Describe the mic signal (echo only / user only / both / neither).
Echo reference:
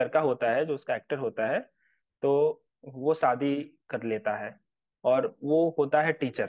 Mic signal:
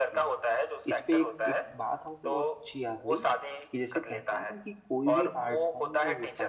both